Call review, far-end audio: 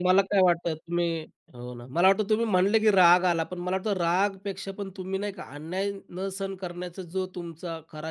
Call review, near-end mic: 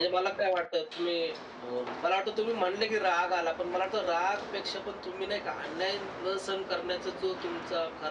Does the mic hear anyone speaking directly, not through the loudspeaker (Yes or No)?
No